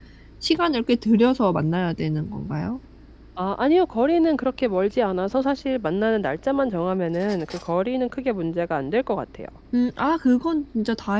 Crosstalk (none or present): none